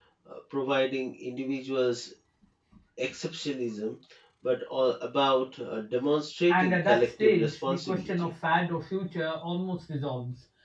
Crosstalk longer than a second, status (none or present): present